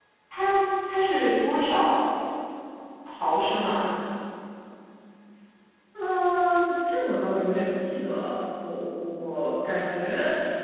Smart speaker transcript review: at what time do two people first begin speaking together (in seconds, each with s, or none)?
none